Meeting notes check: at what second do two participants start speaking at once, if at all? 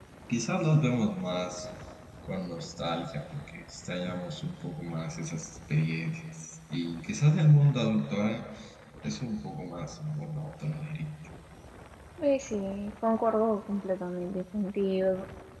none

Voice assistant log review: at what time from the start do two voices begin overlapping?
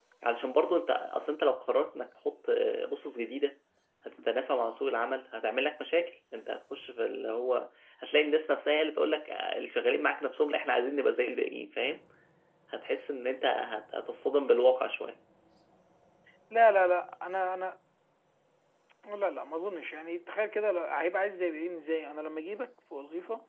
none

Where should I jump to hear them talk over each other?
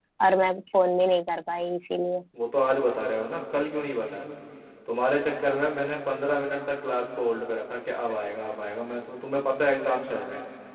none

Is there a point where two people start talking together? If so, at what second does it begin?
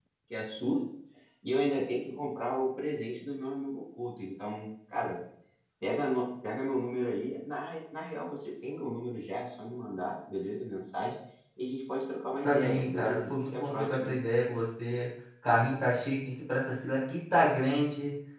12.4 s

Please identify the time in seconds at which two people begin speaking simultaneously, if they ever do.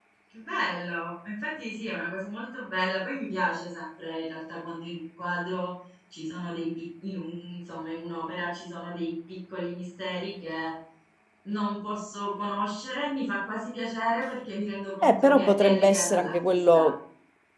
15.0 s

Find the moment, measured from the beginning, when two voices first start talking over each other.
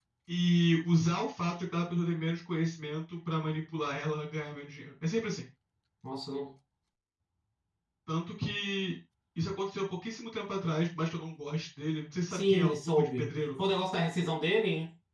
12.3 s

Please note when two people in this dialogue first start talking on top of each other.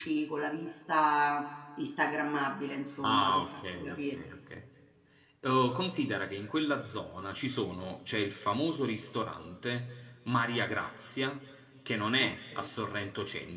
3.0 s

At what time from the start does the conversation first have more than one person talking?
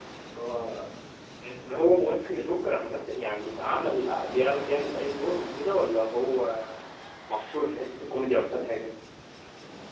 1.7 s

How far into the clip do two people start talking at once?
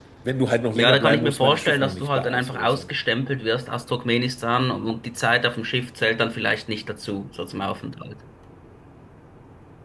0.7 s

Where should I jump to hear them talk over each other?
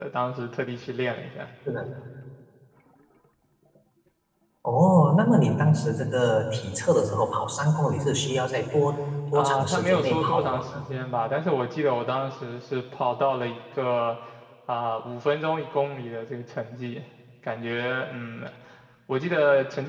9.3 s

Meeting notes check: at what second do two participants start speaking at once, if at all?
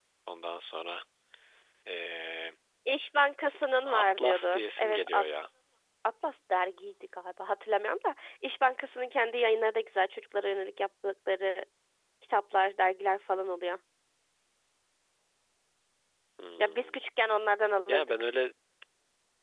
3.9 s

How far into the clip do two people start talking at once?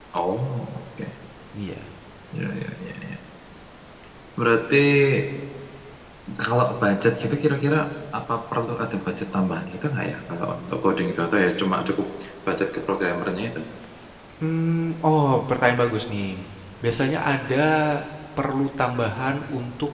none

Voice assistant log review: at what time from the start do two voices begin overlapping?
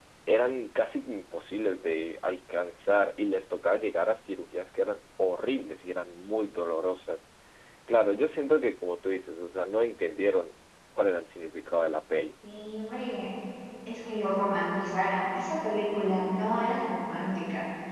none

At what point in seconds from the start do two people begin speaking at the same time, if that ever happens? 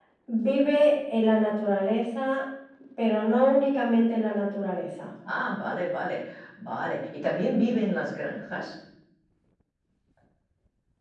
none

